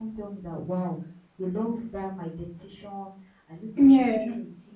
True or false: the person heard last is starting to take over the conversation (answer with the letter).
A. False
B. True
A